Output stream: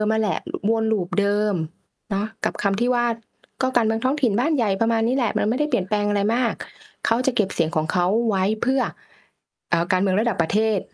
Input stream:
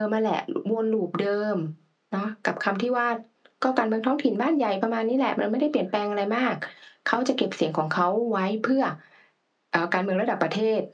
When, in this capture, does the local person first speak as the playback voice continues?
none

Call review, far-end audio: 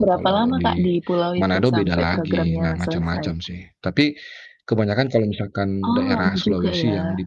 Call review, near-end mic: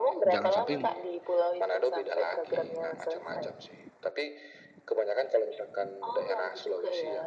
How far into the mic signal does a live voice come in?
0.3 s

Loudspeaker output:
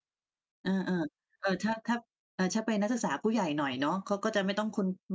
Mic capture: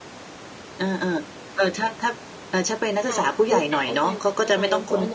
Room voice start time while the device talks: 3.0 s

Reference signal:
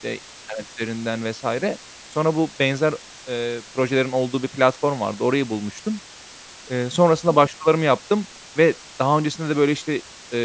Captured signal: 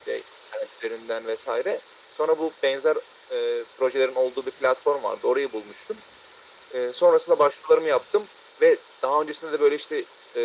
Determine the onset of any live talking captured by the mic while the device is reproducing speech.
none

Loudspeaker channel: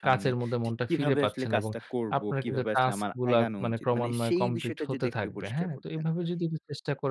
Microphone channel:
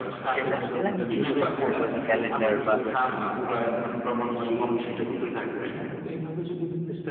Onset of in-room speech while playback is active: 0.3 s

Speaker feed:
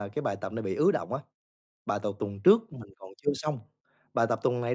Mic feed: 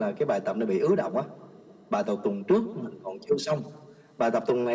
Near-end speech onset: none

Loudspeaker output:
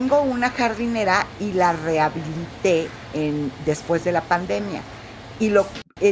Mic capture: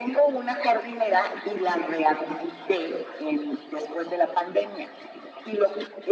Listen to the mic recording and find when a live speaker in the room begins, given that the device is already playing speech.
none

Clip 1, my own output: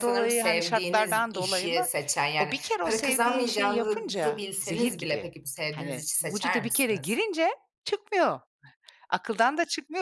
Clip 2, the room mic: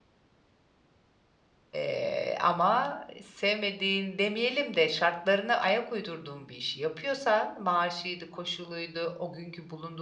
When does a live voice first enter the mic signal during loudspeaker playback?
1.7 s

